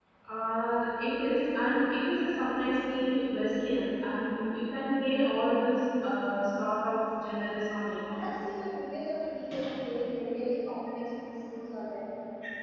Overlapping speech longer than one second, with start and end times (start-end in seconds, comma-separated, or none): none